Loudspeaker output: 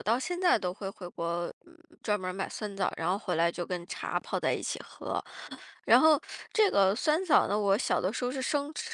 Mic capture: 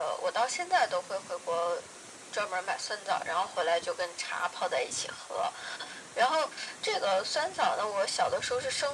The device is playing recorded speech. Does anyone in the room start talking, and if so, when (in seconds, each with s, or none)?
none